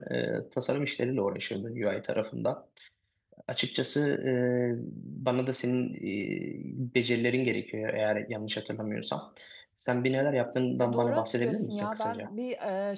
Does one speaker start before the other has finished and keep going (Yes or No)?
Yes